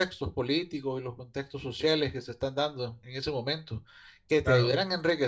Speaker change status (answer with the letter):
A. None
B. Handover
A